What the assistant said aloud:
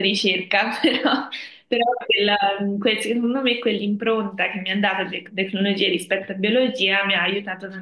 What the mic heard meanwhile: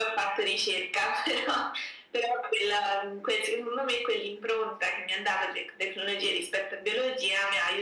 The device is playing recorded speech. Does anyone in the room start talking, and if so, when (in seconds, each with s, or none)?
none